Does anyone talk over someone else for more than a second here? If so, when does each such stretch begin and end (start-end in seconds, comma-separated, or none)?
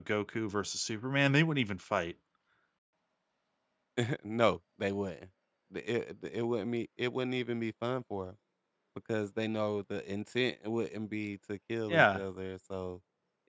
none